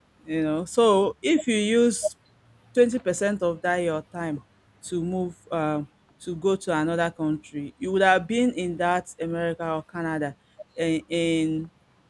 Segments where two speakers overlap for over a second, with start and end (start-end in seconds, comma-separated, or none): none